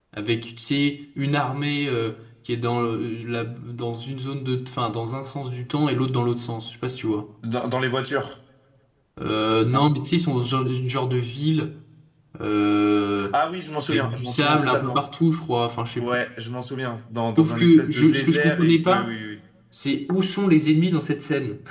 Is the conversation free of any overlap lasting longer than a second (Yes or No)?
No